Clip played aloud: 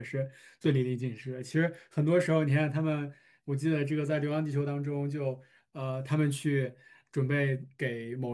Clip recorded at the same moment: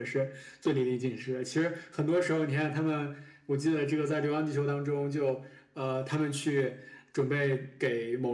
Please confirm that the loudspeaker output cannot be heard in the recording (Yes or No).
No